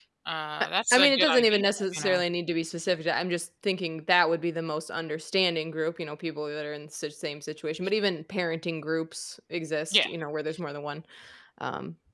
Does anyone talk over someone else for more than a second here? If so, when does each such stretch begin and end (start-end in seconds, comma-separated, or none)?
0.6-2.2